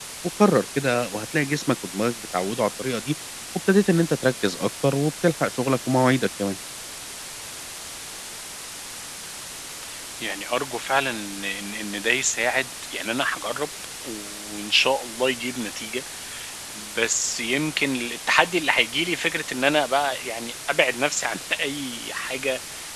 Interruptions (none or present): none